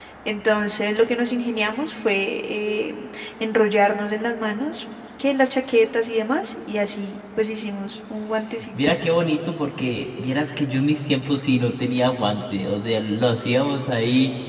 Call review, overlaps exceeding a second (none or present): none